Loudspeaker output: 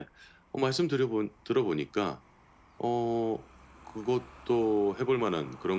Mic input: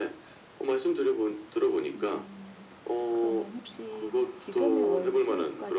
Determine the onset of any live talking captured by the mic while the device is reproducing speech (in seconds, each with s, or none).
2.0 s